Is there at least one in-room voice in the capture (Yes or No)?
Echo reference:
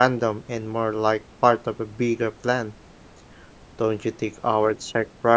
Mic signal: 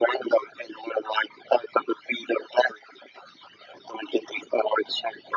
No